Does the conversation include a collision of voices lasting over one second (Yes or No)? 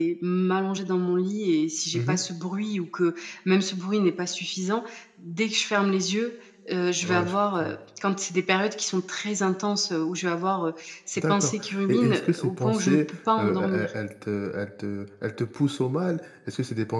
Yes